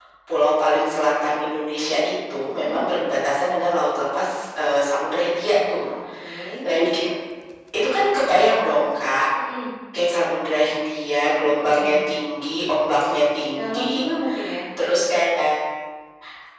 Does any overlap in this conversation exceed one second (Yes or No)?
No